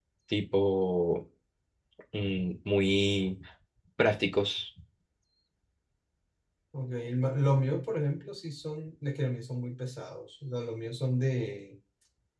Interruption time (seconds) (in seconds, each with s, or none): none